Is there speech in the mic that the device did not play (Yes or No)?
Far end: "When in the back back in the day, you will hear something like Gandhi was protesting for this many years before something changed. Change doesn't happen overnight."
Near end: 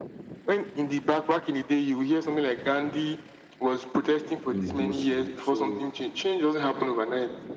Yes